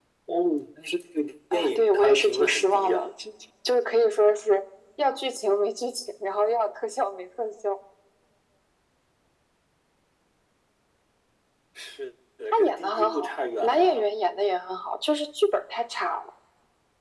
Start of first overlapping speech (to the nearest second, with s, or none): 2 s